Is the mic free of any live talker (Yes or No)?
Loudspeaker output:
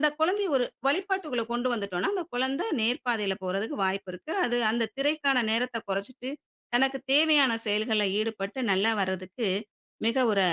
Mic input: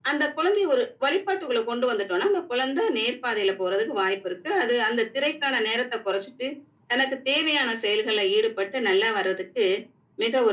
Yes